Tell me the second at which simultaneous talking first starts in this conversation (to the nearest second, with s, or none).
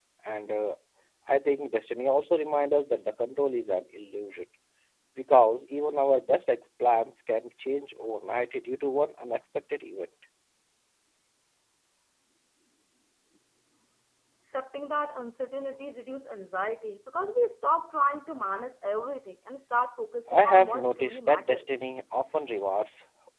20 s